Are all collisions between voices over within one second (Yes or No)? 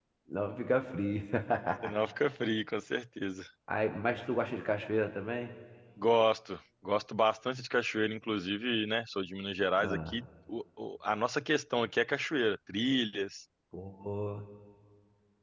Yes